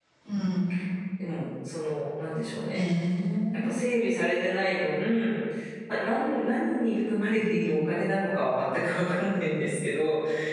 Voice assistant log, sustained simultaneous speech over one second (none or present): none